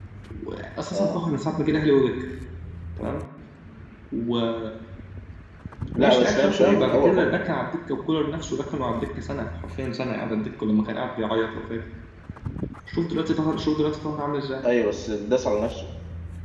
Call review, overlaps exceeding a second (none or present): present